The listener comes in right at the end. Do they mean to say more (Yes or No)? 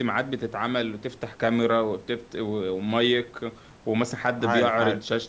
No